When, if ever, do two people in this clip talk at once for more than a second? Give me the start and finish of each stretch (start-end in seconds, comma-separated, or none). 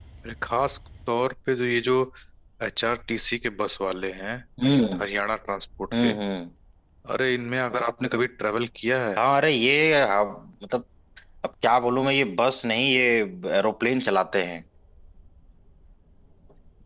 none